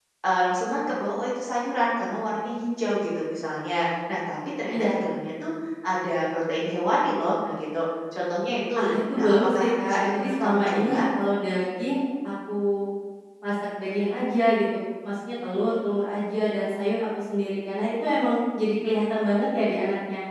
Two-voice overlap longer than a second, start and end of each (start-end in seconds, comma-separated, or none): 8.8-11.0